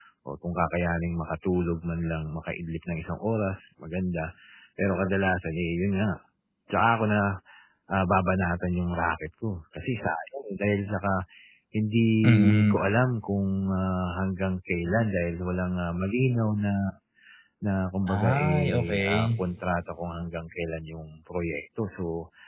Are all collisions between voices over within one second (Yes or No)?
No